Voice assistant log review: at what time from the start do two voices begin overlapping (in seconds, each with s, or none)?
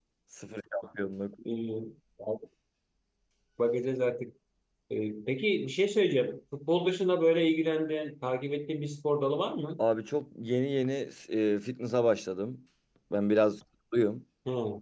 none